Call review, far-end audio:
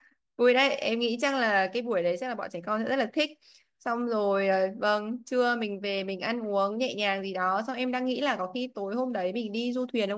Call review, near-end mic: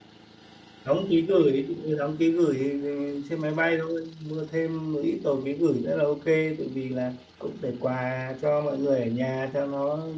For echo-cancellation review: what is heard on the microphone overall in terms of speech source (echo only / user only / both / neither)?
user only